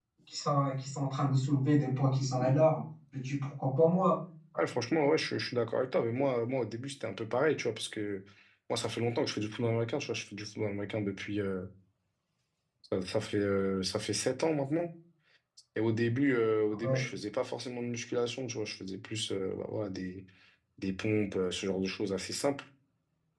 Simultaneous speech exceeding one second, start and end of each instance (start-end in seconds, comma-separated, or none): none